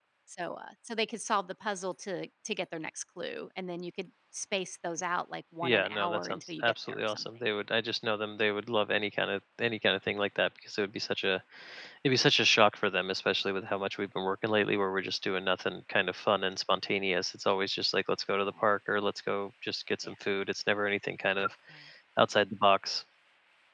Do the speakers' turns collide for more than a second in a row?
Yes, from 5.6 s

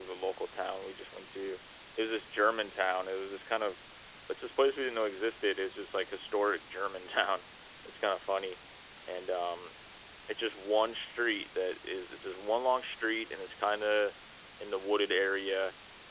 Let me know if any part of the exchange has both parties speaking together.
No

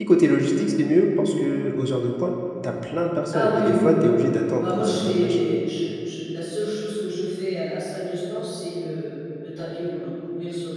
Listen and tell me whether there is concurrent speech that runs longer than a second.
Yes, from 3.3 s

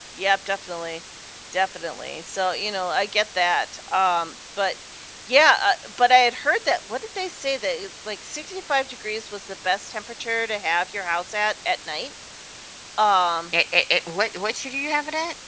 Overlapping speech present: No

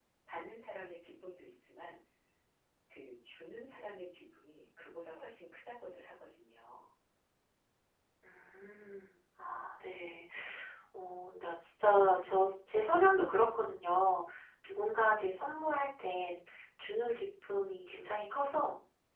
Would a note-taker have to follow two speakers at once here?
No

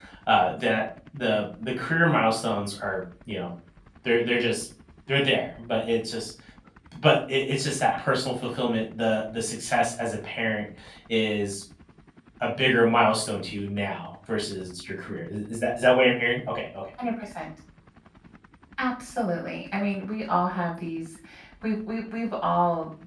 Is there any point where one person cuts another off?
No

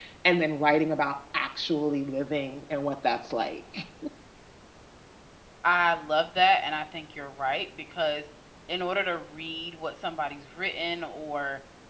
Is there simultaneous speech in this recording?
No

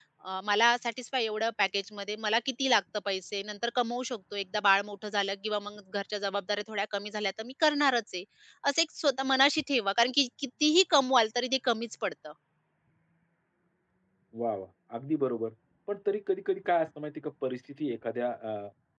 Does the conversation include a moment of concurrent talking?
No

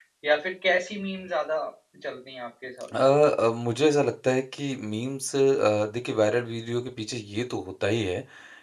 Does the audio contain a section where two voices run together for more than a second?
No

